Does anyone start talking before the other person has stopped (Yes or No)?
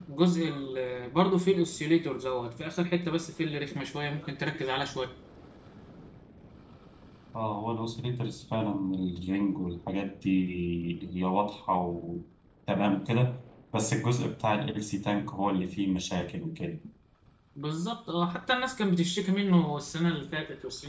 No